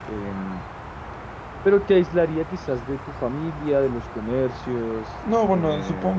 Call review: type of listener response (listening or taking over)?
taking over